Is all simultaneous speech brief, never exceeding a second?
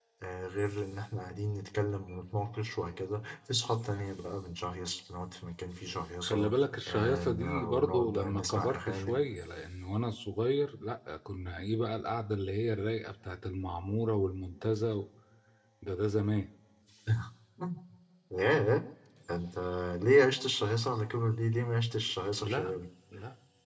No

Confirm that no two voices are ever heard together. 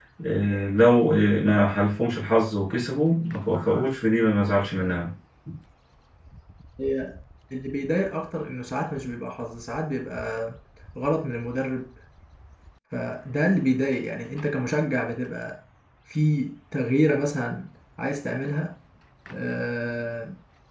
Yes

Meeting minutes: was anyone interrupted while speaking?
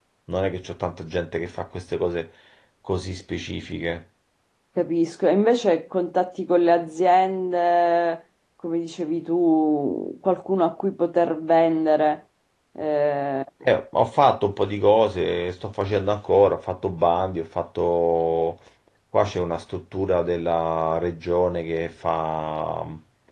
No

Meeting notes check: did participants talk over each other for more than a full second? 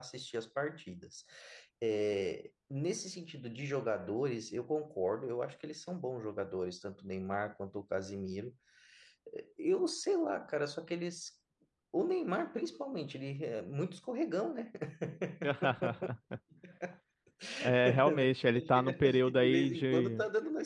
Yes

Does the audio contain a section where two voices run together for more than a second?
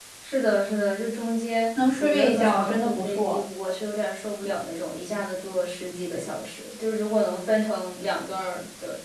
Yes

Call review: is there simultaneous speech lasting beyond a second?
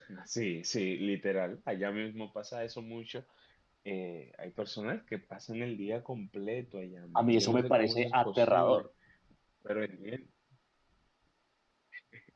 Yes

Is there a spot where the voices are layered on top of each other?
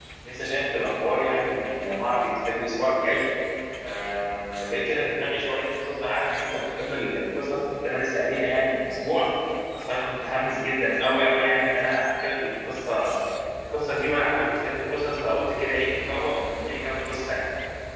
No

